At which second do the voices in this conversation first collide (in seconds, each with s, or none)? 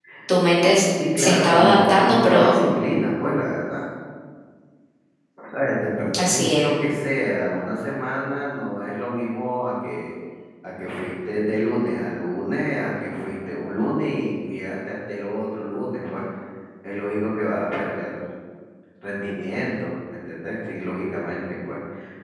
1.2 s